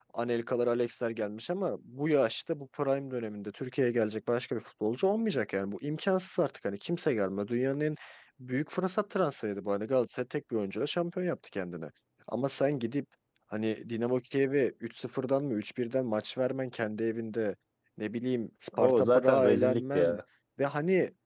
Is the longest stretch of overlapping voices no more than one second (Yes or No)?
No